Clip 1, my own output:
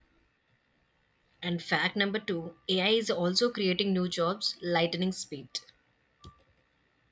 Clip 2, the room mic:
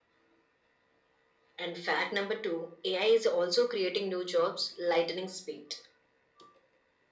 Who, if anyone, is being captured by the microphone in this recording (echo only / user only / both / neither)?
echo only